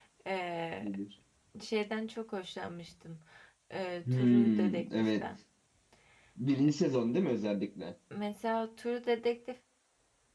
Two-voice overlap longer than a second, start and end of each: 4.0-5.2

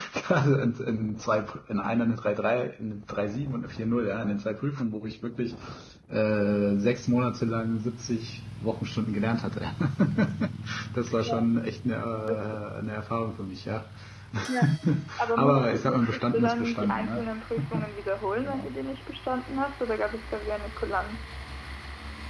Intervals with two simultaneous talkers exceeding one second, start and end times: 15.4-17.3

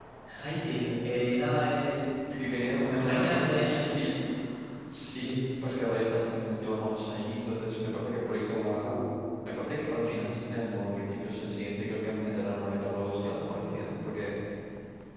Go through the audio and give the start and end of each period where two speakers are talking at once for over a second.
2.8-4.1

